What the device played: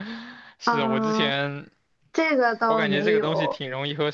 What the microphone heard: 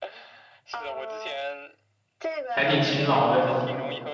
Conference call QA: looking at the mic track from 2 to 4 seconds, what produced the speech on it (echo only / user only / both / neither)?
both